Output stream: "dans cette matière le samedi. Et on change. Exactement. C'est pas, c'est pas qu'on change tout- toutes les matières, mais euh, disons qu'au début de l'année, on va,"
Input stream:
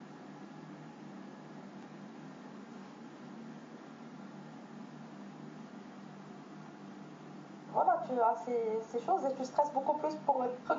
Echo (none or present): none